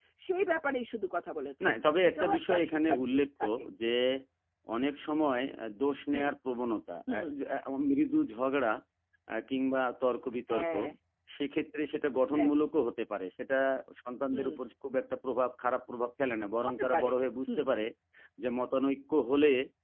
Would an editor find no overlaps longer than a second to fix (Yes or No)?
No